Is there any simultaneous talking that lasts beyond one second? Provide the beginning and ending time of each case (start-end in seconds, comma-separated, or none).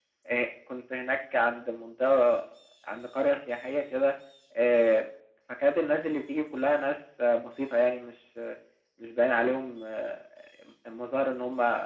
none